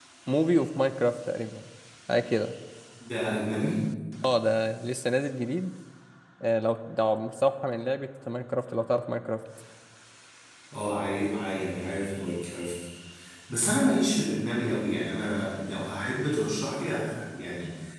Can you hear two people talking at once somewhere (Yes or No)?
No